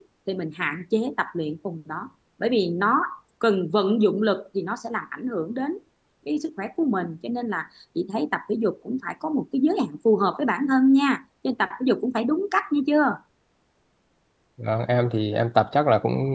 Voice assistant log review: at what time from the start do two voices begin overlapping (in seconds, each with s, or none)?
none